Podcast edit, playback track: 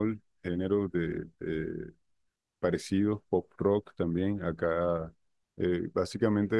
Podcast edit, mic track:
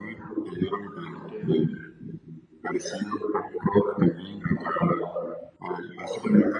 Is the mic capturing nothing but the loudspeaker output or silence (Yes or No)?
No